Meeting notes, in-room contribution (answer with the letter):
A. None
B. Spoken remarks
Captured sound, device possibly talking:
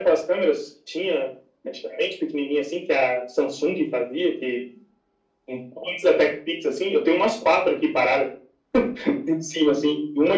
A